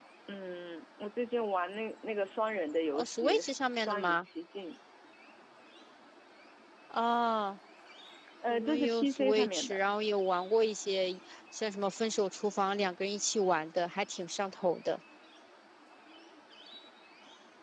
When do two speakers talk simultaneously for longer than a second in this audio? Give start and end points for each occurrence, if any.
2.9-4.2, 8.5-9.8

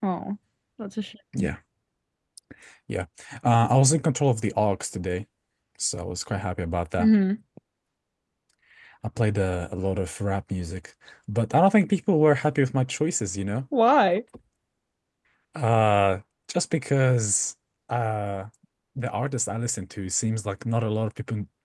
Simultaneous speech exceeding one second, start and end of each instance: none

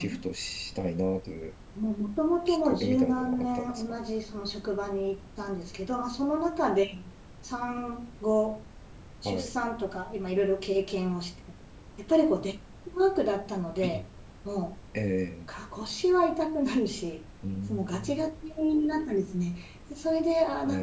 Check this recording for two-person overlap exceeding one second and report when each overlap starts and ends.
2.5-3.8

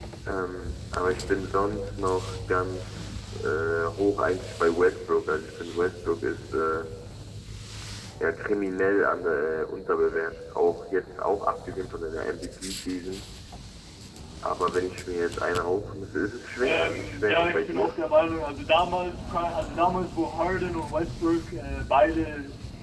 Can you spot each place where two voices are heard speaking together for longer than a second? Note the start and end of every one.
16.6-18.0

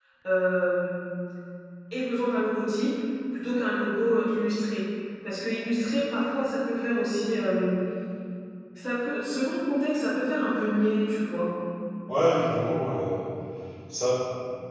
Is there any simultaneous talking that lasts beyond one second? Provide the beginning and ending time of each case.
none

